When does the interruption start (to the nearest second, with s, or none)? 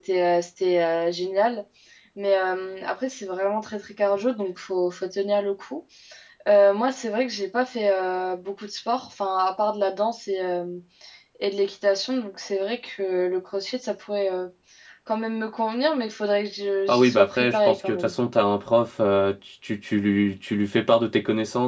17 s